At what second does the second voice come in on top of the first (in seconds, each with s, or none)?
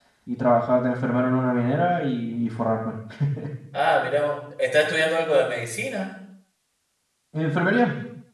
none